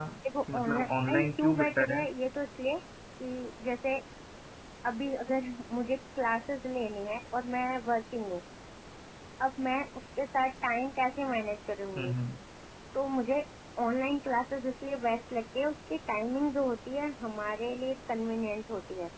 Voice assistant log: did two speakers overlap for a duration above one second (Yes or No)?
Yes